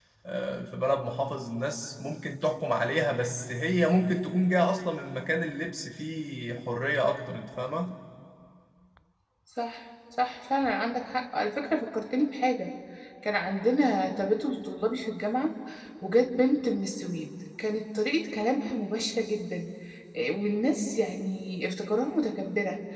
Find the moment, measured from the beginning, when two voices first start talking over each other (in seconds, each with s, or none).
none